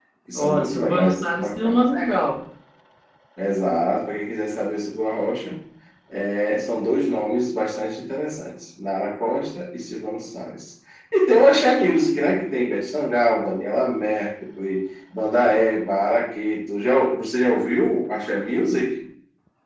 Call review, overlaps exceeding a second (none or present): present